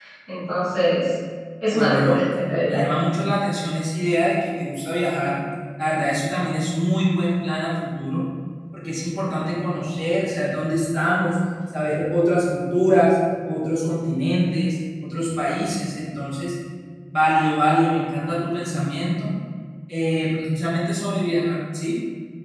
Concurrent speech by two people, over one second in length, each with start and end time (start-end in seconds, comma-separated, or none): none